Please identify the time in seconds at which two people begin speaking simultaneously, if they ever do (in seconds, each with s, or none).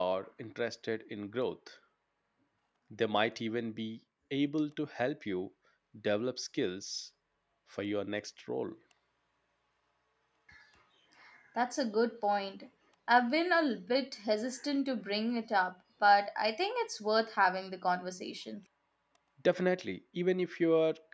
none